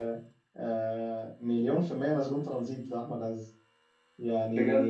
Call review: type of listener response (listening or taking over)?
listening